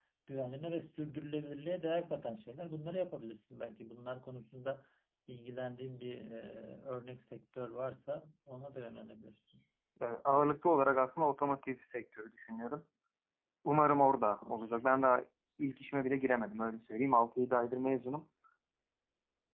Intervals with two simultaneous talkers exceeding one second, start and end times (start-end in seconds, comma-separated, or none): none